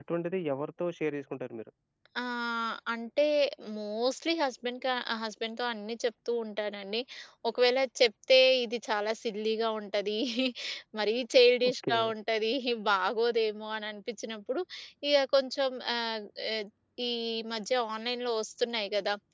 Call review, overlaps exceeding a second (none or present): none